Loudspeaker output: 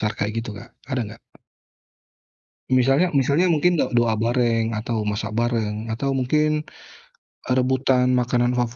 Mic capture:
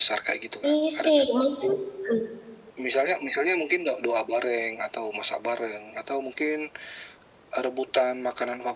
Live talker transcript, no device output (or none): Isi mungkin, mmm.